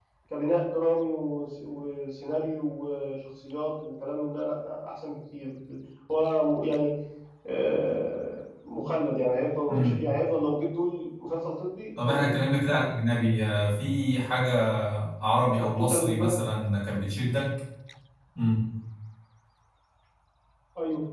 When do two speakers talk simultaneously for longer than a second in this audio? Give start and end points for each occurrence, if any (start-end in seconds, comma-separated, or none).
none